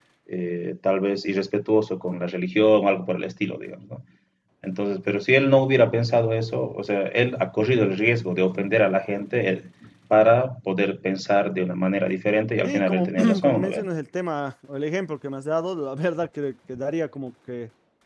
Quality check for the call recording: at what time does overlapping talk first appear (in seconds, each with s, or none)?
12.6 s